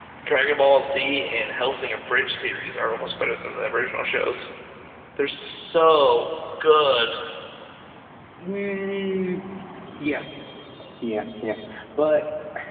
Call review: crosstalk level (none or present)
none